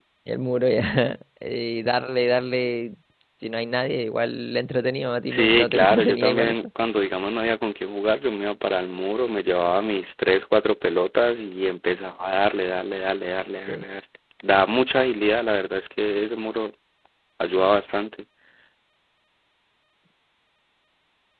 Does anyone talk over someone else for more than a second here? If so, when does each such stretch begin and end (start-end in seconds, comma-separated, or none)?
5.3-6.6